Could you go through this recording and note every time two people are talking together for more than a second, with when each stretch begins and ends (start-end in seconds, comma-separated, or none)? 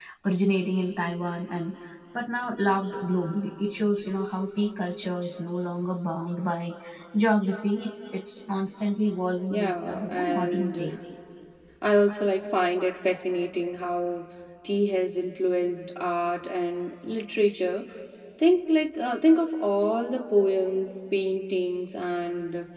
9.5-10.9